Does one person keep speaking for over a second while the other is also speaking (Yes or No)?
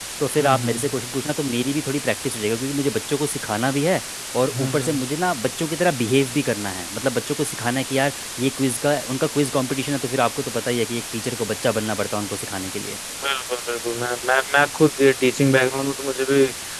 No